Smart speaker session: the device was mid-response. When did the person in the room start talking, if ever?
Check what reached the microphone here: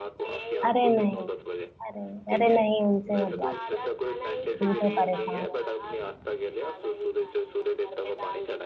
0.7 s

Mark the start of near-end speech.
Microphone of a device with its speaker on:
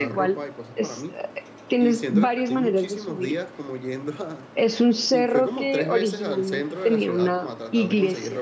none

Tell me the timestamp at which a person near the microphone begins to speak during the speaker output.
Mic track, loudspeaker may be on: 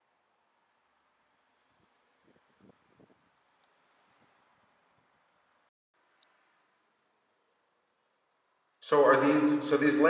8.8 s

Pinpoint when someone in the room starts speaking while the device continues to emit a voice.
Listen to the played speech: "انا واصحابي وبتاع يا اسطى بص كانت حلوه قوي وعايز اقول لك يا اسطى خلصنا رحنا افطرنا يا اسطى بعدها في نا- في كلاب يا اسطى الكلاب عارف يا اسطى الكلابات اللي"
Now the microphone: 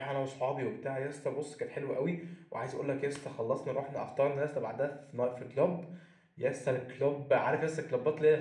none

